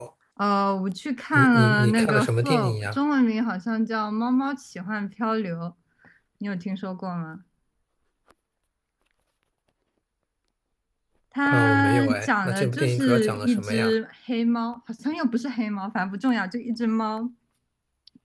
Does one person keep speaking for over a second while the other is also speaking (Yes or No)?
Yes